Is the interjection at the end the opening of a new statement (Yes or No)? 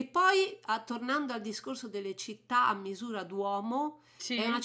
No